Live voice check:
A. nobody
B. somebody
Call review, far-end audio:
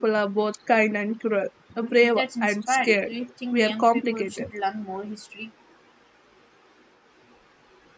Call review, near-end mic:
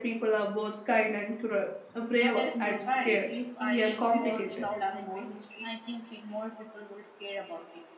B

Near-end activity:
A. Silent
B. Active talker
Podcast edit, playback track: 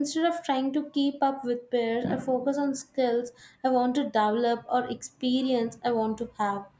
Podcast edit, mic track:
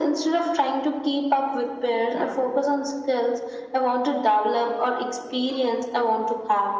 A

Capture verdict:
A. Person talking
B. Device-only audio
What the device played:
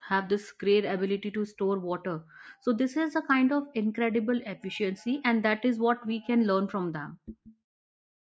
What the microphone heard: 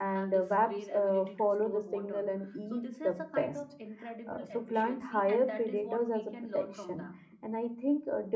A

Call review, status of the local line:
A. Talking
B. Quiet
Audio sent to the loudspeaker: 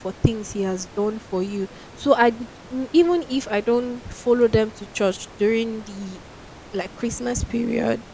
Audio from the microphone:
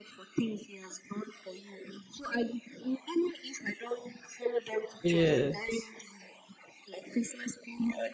A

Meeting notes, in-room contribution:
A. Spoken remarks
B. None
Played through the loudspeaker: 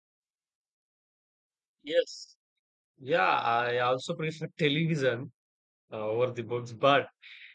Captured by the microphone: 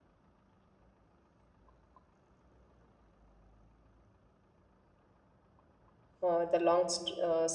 A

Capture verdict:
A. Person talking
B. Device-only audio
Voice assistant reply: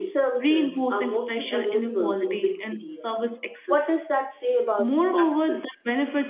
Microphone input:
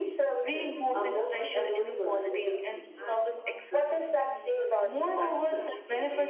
A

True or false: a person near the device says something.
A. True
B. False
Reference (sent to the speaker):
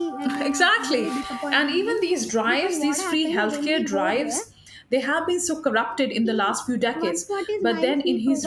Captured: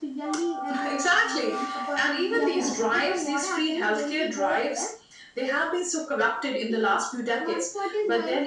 A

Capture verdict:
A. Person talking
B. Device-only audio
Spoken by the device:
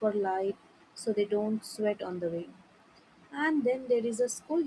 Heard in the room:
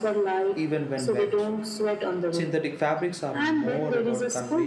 A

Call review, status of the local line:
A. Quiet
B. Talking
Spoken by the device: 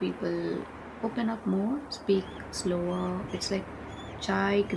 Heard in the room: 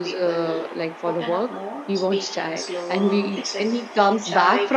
B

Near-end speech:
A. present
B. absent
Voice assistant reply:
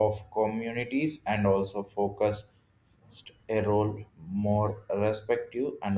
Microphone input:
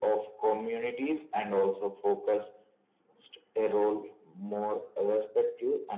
B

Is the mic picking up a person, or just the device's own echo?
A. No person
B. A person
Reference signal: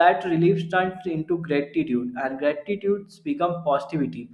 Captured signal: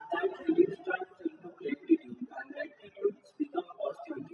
A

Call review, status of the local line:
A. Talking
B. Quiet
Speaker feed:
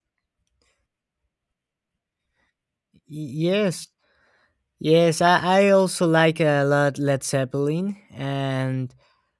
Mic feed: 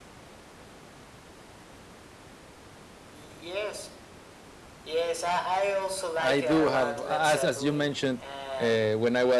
A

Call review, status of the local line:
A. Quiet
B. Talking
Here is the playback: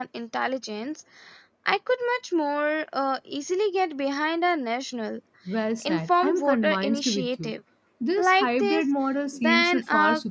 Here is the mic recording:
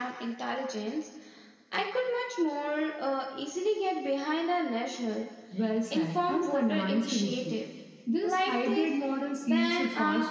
A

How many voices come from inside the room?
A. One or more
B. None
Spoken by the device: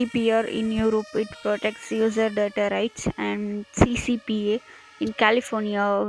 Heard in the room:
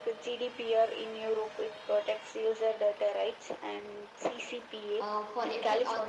A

